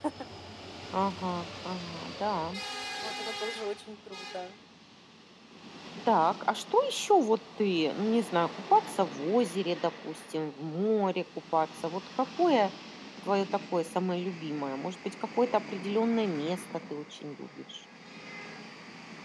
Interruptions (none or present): none